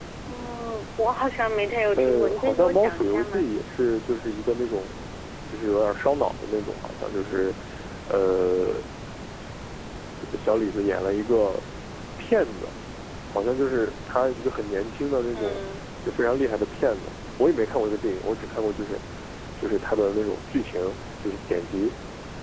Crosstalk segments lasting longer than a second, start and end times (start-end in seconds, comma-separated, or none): 2.0-3.5